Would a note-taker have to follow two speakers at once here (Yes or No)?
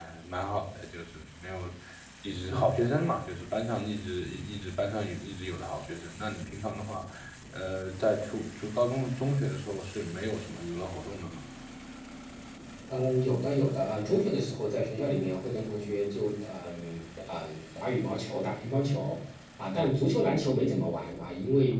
No